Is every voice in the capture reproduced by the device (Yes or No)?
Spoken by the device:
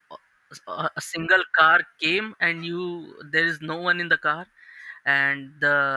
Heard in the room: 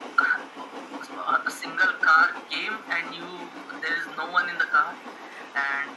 Yes